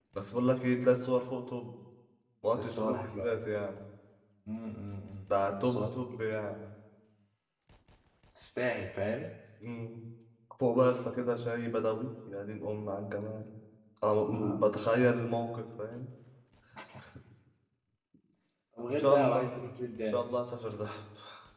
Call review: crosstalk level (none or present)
present